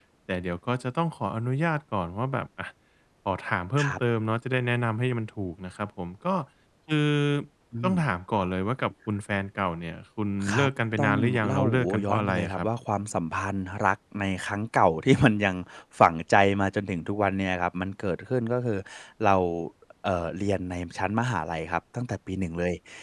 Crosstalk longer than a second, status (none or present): present